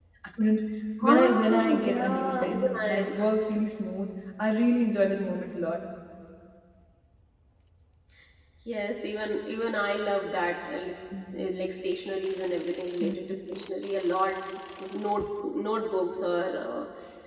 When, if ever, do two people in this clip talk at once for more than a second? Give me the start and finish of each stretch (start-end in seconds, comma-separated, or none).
1.0-3.1